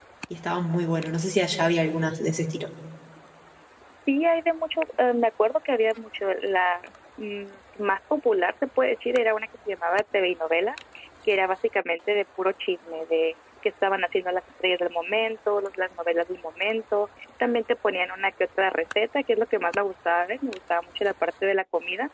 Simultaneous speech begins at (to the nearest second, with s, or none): none